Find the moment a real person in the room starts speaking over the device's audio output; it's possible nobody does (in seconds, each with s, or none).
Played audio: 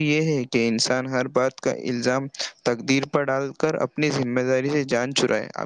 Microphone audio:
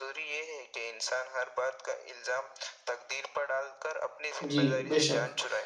4.5 s